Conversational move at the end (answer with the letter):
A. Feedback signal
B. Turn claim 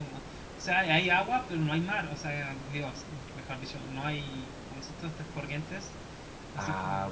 B